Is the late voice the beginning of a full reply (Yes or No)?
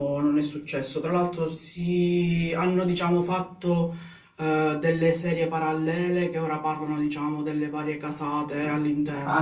Yes